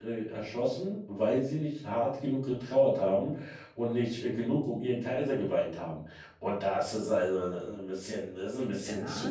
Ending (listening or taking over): taking over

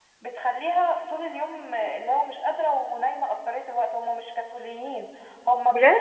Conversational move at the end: listening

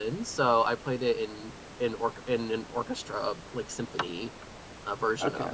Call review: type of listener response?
taking over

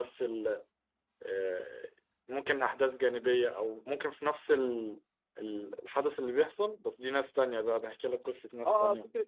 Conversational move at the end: taking over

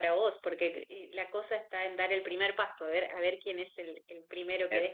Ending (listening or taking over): listening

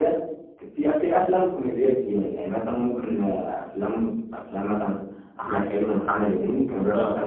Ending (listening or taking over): listening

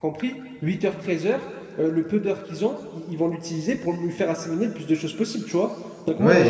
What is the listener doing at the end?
taking over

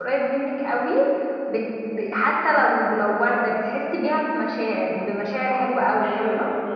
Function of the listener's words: taking over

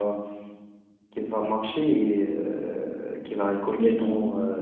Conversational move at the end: listening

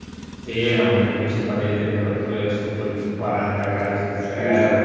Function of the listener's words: taking over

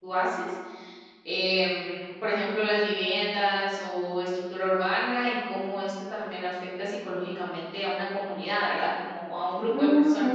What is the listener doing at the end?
taking over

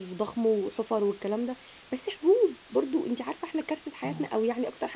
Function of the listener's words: listening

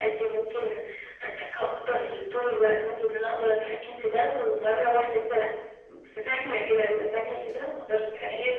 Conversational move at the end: taking over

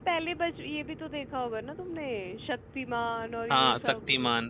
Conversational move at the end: taking over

